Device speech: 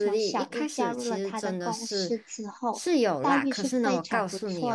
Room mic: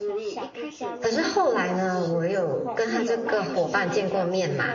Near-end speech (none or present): present